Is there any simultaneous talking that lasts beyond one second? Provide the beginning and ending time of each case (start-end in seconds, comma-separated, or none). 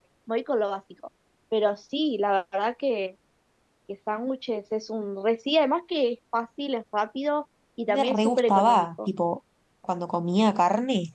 7.9-9.1